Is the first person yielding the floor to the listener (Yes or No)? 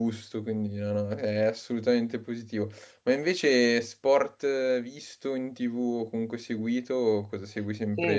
Yes